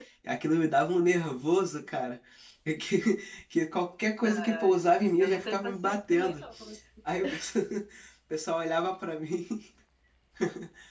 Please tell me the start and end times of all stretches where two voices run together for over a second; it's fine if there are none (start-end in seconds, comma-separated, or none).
5.2-6.4